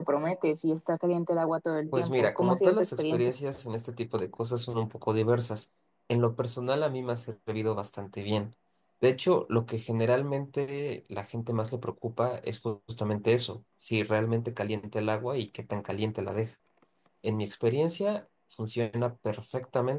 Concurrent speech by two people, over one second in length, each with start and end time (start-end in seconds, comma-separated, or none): 1.9-3.3